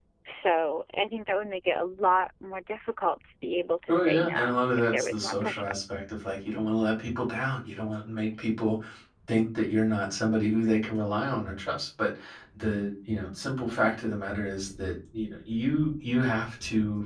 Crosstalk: present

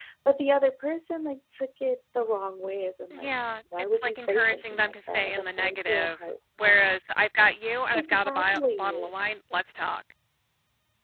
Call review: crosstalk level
present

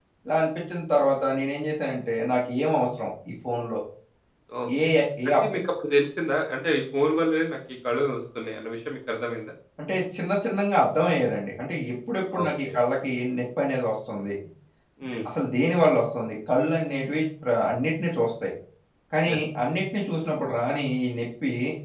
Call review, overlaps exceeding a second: none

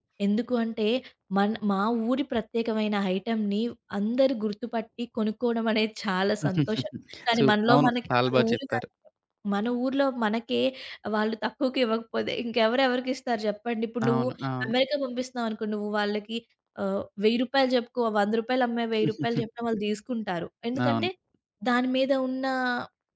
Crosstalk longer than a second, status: present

